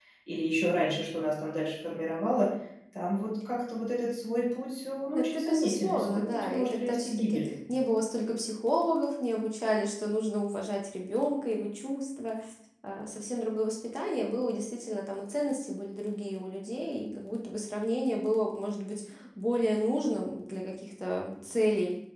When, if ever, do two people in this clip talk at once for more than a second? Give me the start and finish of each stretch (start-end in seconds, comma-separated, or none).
5.2-7.5